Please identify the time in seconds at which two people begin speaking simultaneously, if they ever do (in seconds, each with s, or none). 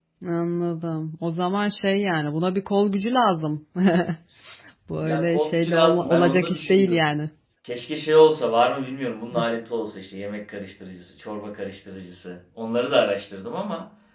5.0 s